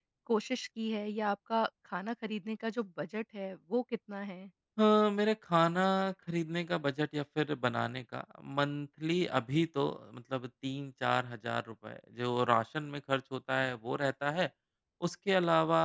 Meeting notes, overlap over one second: none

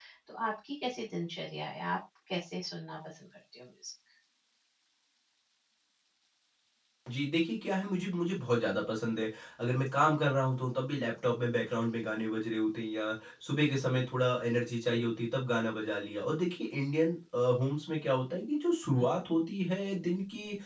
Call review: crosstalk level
none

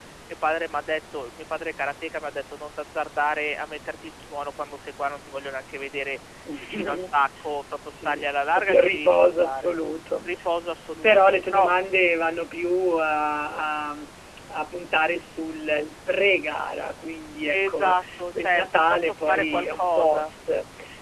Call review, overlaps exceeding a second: present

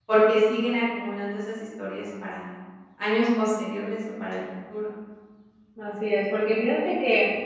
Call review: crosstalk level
none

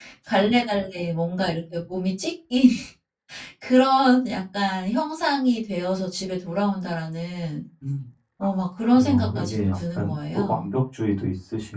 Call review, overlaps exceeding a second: present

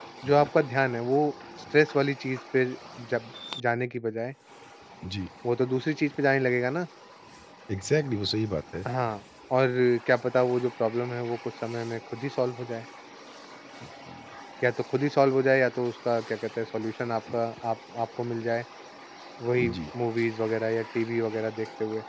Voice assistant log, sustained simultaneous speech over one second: none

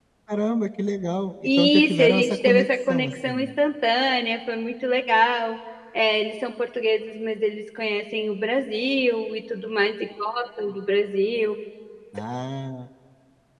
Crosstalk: present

